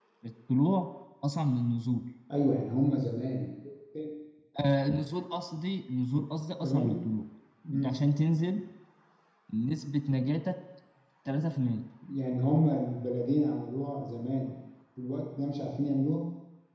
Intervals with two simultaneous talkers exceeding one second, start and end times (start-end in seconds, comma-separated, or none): none